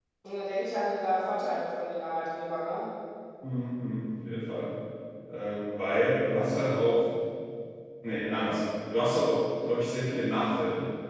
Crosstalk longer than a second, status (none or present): none